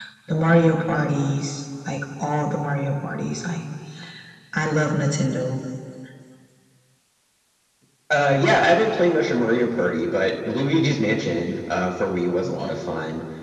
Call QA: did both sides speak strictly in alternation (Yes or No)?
Yes